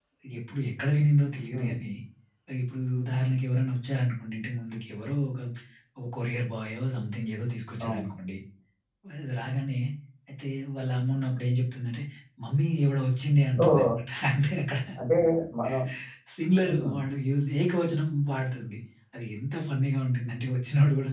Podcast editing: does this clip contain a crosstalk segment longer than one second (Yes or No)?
No